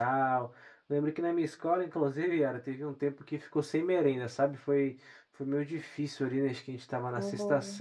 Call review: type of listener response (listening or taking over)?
listening